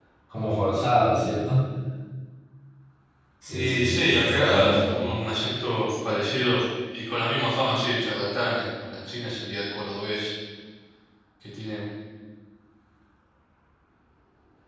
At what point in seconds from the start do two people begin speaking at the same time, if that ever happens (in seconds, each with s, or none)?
3.5 s